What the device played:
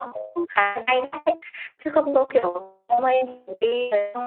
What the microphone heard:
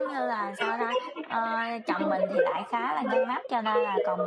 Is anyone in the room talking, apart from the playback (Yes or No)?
Yes